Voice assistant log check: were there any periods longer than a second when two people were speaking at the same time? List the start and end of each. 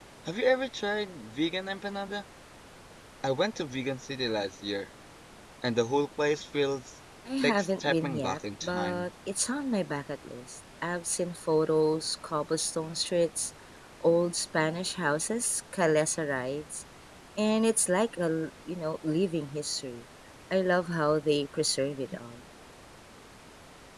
7.4-9.1

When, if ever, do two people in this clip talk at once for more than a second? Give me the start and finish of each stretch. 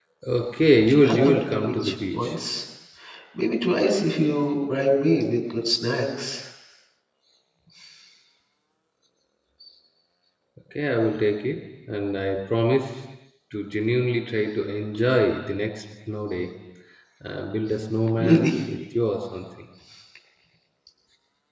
1.0-2.4

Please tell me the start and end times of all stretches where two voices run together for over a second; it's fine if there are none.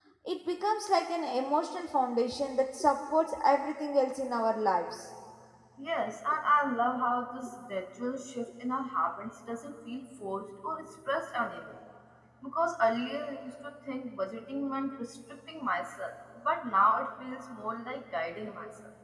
none

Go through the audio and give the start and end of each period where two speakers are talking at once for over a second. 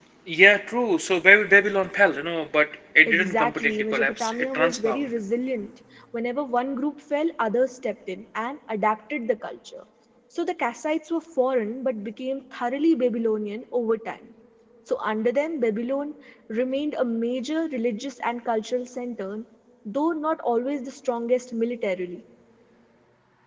3.1-5.1

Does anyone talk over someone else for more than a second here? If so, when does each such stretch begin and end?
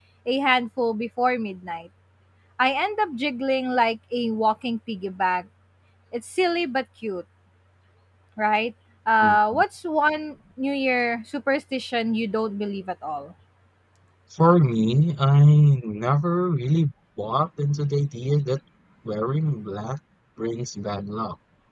none

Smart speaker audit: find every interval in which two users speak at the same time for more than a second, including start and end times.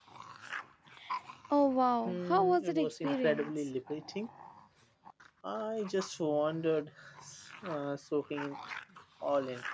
2.0-3.7

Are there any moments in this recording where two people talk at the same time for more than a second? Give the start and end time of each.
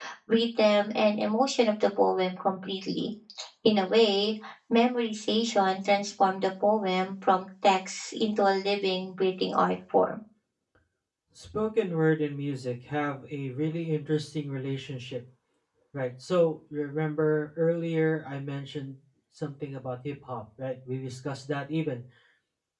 none

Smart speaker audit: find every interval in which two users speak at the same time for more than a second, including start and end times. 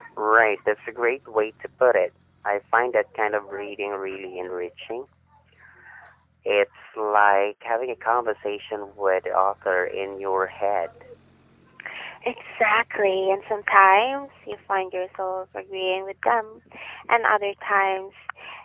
none

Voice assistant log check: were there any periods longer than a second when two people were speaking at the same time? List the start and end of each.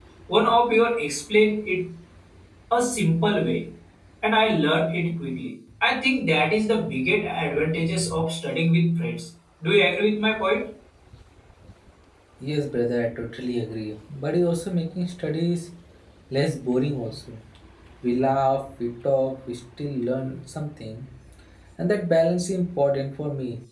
none

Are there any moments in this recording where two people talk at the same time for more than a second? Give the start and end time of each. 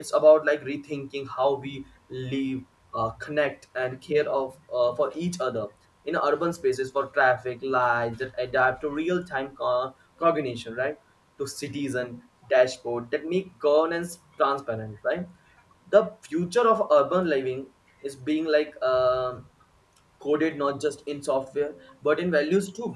none

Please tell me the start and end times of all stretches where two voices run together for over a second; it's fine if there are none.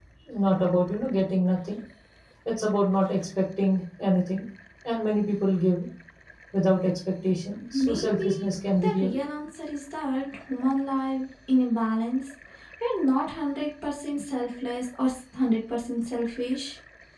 7.7-9.1

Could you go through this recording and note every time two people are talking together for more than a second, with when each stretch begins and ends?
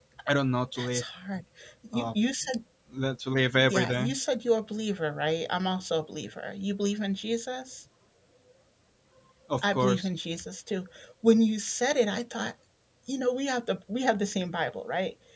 none

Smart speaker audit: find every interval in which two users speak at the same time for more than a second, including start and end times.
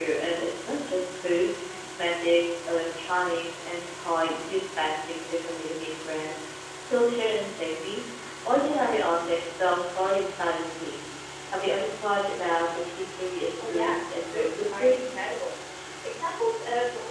13.7-15.0

